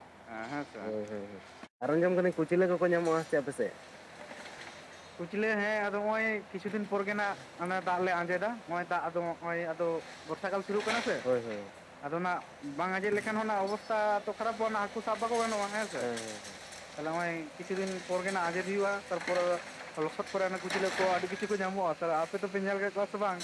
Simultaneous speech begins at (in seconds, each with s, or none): none